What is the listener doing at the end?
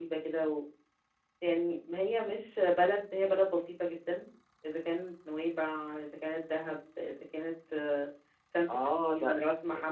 taking over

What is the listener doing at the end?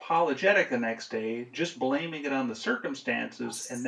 listening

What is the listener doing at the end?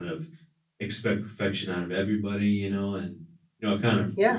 listening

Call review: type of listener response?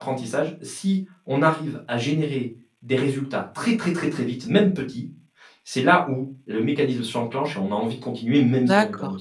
taking over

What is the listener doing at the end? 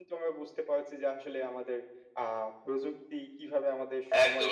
taking over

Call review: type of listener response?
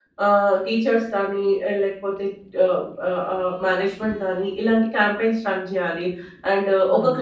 taking over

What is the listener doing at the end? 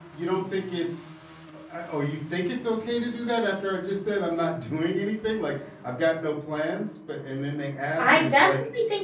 taking over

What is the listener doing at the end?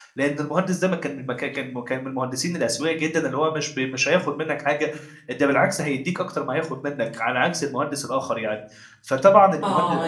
taking over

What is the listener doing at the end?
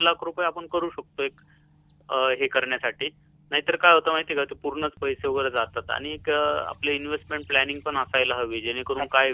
listening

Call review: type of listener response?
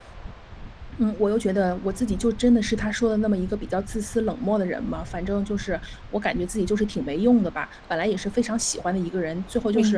listening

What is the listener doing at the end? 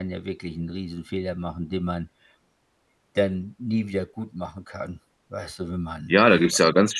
taking over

